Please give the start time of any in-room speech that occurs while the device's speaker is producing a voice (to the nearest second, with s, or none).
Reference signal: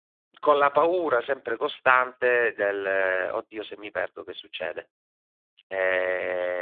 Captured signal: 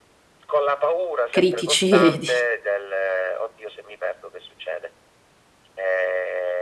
1 s